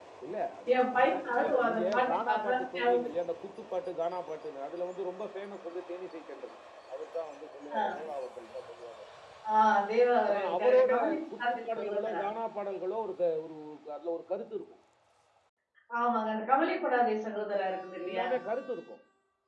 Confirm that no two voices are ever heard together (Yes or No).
No